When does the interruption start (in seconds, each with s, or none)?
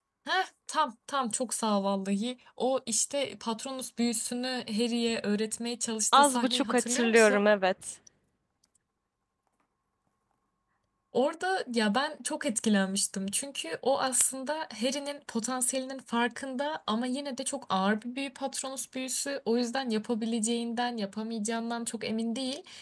6.1 s